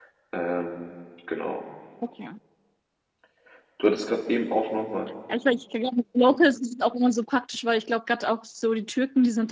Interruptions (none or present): none